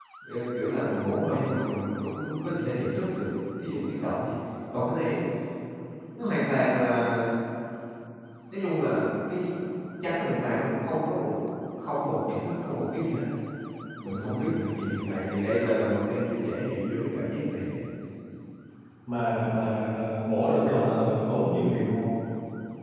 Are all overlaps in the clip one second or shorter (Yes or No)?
Yes